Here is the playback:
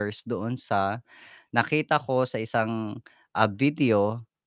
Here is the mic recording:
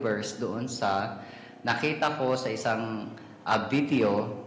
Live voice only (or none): none